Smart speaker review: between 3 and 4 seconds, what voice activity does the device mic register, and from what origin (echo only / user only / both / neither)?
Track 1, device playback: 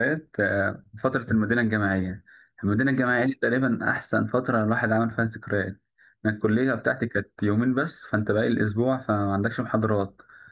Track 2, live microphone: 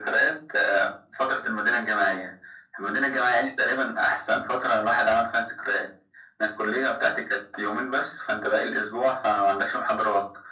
echo only